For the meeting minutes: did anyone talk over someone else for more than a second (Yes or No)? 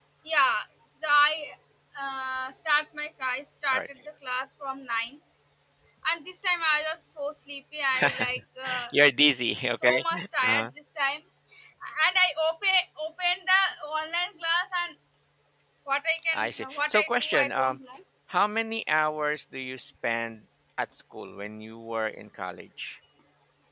Yes